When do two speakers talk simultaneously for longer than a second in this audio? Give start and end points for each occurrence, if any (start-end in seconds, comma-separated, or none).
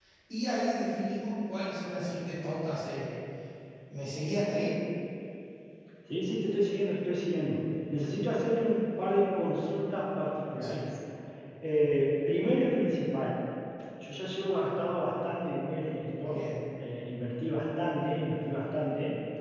none